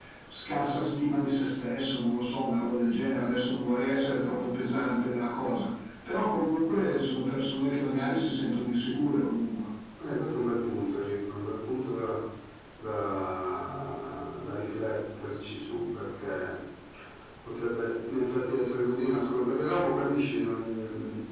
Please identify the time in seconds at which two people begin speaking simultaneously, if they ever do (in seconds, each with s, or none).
none